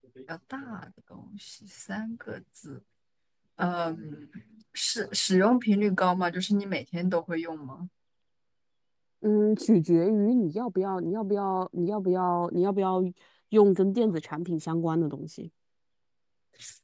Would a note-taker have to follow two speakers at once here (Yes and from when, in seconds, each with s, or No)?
No